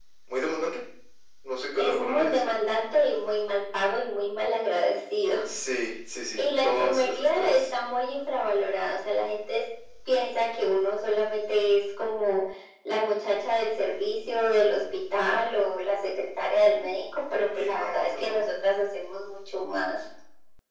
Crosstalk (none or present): present